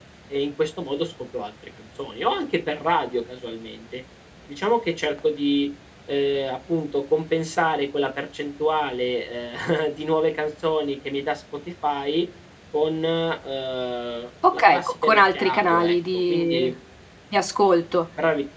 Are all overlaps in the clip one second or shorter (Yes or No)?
No